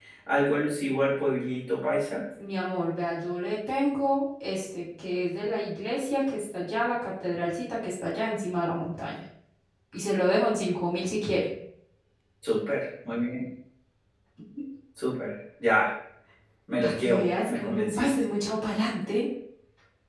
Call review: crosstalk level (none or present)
present